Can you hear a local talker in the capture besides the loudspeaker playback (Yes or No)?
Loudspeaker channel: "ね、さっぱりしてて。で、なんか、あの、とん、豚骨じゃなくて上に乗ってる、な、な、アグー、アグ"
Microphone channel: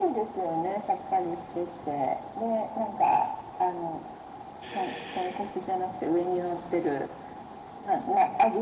Yes